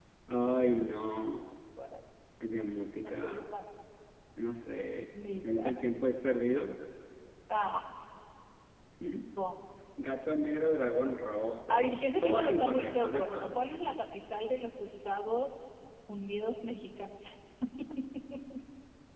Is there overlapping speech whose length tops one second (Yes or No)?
Yes